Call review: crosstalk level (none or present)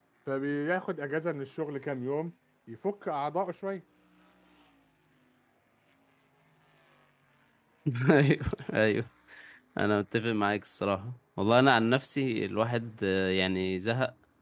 none